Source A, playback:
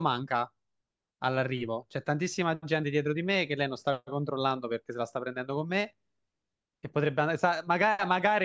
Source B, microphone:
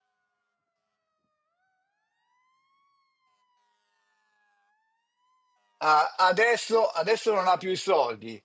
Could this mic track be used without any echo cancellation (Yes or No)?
Yes